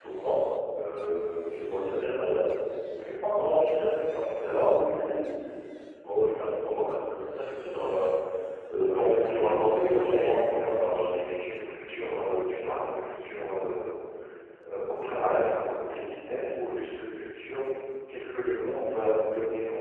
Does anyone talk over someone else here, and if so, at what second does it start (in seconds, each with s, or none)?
8.9 s